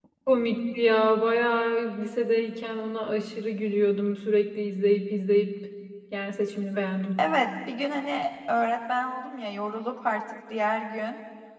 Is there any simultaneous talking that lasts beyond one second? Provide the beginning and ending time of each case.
none

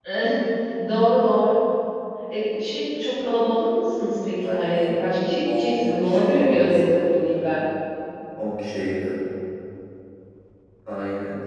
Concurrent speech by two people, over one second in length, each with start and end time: 5.4-7.0

